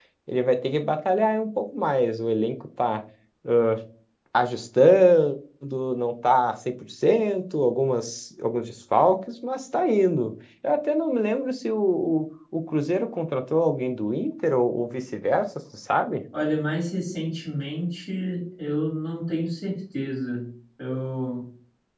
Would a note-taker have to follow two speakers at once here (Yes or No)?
No